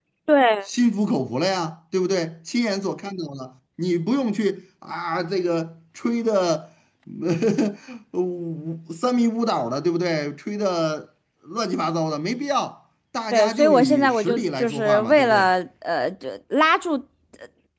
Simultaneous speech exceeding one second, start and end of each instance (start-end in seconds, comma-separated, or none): 13.3-15.5